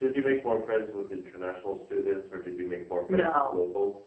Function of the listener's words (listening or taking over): taking over